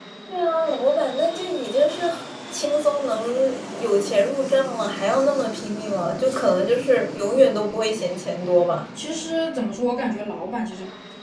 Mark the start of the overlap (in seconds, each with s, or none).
none